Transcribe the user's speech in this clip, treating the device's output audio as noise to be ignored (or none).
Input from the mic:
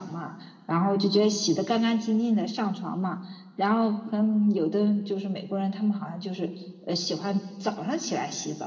none